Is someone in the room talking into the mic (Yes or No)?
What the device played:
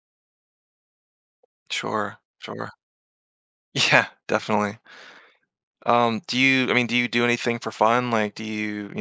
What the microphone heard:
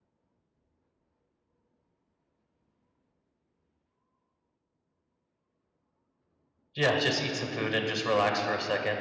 Yes